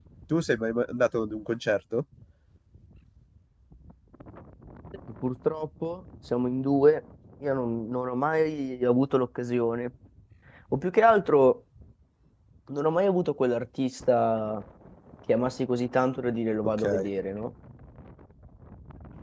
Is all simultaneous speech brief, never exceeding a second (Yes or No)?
Yes